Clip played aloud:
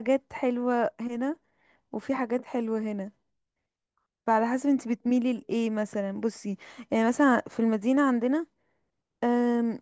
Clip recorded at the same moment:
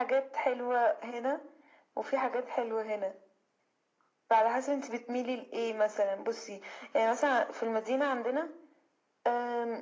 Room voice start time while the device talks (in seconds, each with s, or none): none